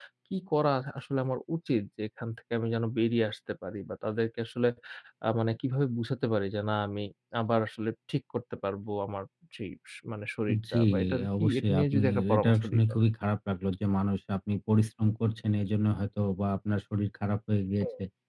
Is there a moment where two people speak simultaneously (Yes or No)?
Yes